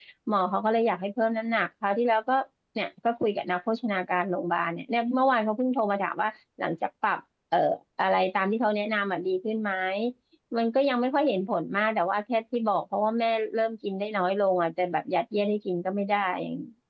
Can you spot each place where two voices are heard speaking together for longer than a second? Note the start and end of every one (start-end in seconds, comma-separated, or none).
none